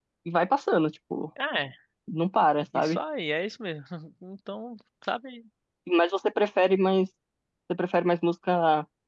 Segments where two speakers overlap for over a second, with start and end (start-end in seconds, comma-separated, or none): none